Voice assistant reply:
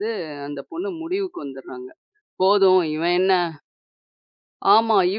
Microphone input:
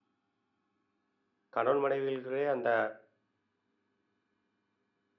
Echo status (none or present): none